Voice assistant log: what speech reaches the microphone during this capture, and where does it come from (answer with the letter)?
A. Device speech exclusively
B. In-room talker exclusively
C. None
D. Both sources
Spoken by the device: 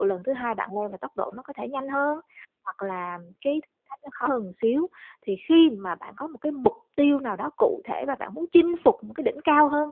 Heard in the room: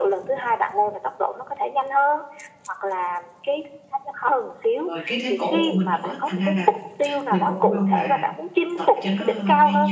D